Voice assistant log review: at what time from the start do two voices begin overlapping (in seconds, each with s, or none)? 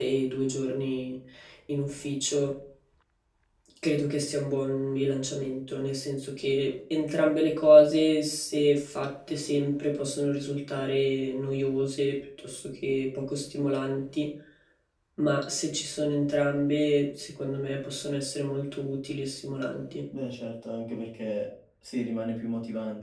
none